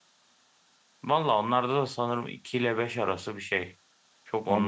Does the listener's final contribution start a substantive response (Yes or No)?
Yes